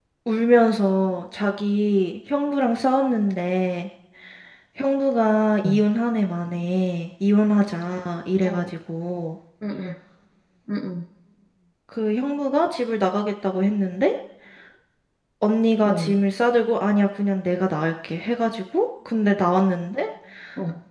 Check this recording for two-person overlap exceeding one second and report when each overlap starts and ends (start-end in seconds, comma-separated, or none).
none